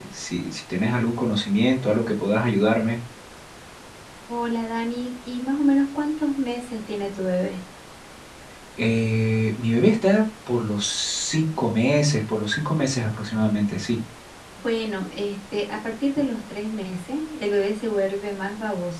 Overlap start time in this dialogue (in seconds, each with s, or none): none